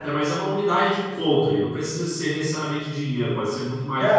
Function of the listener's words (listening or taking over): taking over